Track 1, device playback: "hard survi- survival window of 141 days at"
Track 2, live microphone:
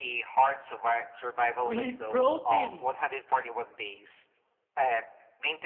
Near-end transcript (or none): We need protein.